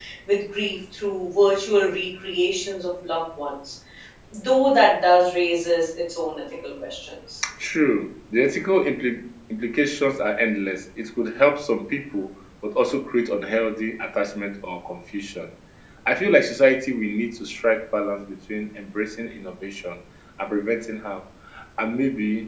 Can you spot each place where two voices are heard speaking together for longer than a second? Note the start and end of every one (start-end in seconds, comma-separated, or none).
none